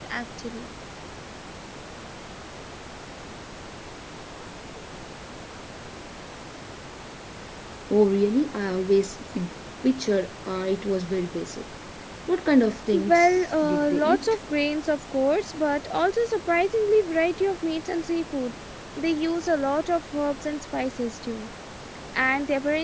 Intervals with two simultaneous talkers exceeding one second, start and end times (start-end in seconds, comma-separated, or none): 12.9-14.4